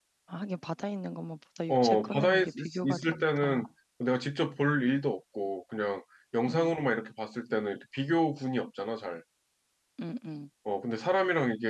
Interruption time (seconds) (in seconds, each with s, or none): 1.7 s